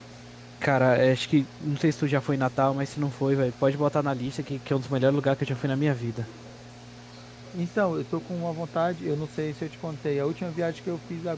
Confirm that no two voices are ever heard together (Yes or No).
Yes